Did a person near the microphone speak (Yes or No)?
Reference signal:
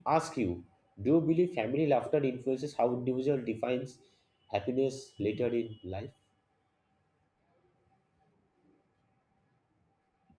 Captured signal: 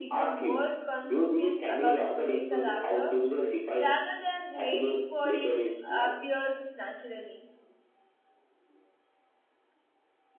Yes